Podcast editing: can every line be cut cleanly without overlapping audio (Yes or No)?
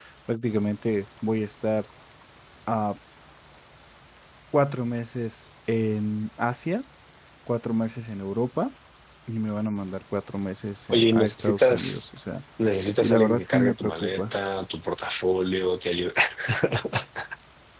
No